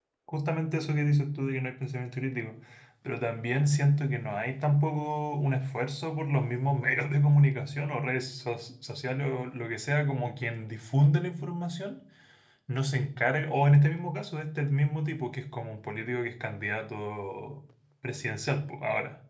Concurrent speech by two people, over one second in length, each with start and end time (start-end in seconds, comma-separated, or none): none